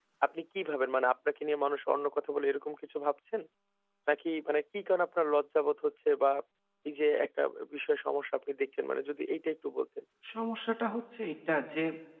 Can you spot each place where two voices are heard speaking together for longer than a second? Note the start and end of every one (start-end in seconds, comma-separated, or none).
none